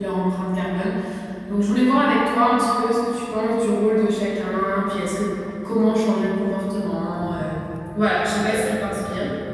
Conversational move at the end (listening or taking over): taking over